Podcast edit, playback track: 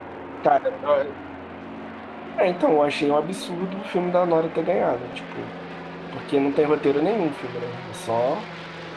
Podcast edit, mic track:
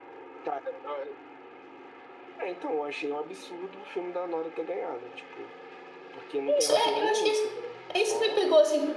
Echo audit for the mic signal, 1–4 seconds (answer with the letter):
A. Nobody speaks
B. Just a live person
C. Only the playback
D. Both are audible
C